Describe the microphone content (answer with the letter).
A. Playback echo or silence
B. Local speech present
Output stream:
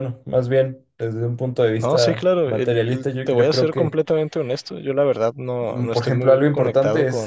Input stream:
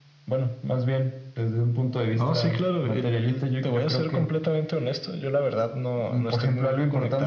A